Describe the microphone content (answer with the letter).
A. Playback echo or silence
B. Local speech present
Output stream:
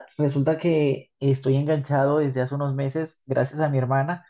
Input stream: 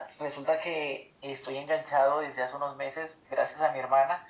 A